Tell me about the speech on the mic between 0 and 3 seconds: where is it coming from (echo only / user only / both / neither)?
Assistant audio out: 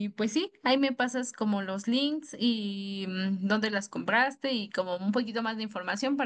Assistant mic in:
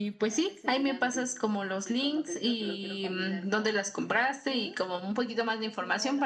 both